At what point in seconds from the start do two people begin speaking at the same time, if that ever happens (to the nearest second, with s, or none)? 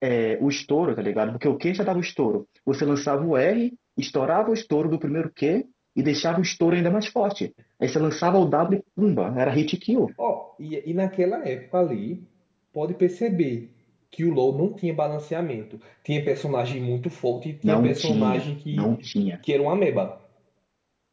18 s